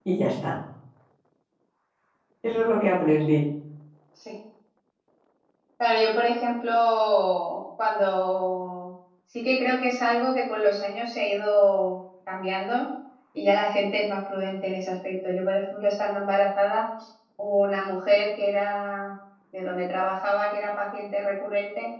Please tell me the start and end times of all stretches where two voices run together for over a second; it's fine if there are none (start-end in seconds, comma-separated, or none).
none